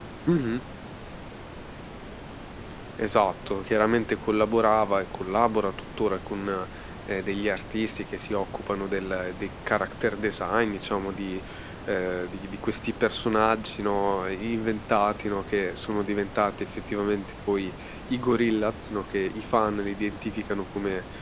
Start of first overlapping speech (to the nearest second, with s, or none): none